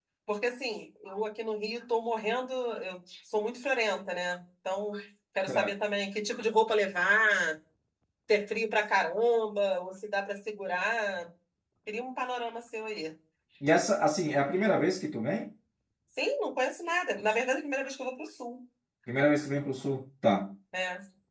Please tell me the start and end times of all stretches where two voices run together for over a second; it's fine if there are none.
none

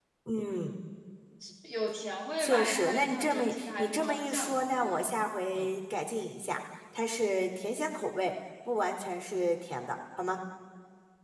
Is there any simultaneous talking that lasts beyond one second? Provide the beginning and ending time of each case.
2.4-5.0

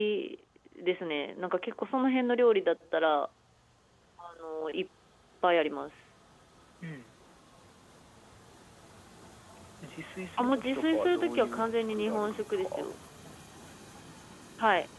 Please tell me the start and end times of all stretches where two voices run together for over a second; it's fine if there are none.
10.4-12.9

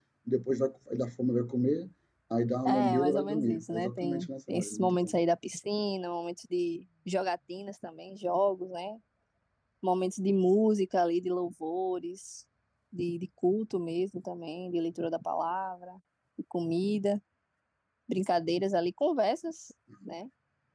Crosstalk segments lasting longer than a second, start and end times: 2.6-5.1

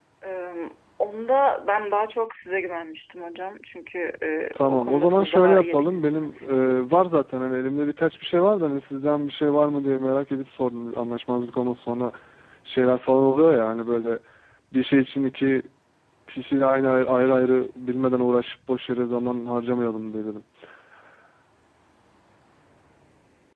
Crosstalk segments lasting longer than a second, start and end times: 4.5-6.4

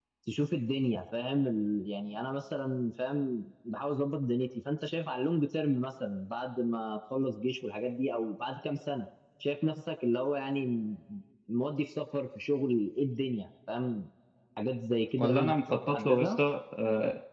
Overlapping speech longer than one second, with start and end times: 15.2-16.4

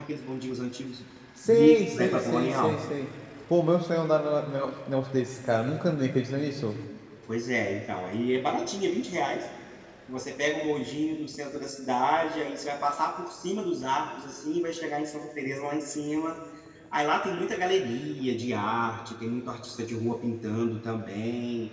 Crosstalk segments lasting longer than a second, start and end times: 1.4-2.8

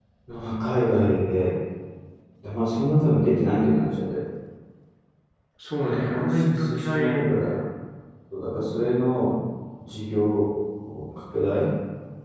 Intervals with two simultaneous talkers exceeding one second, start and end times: 5.9-7.3

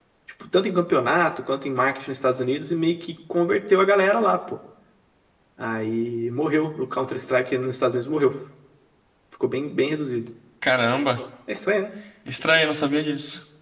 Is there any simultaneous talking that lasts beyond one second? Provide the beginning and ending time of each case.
none

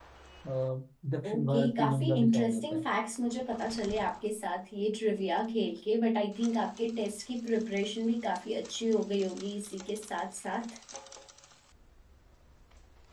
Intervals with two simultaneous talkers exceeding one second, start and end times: 1.2-2.8

